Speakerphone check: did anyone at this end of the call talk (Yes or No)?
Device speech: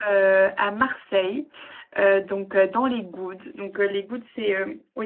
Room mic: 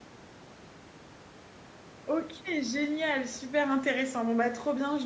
Yes